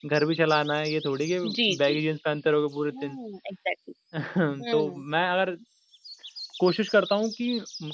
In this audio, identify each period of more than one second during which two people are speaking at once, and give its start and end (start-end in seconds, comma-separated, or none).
none